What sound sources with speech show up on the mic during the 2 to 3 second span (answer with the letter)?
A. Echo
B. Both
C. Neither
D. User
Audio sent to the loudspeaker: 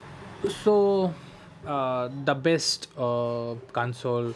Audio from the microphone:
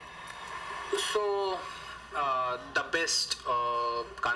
A